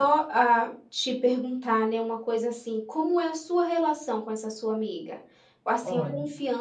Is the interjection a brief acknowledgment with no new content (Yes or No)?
Yes